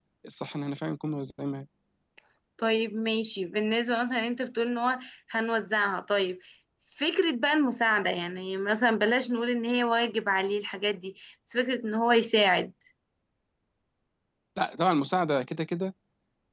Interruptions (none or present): none